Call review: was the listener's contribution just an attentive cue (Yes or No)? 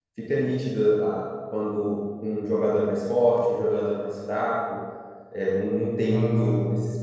Yes